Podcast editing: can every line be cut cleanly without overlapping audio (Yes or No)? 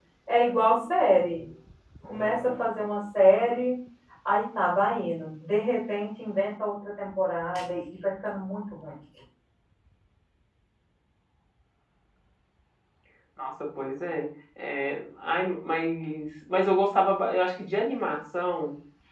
Yes